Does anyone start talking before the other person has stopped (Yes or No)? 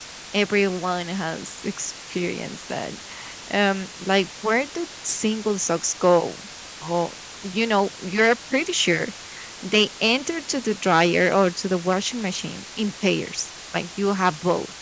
No